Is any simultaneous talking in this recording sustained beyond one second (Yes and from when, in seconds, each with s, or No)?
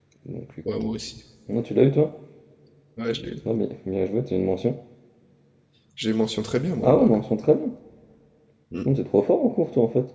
No